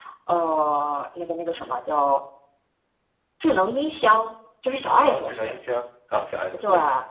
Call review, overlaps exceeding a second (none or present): none